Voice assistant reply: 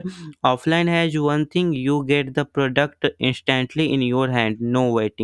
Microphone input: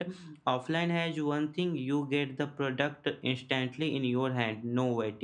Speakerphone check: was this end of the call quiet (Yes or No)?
Yes